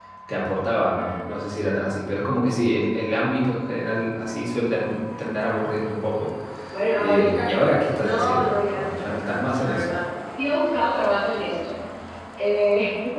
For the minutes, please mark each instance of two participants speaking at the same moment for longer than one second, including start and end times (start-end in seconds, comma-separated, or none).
8.0-10.0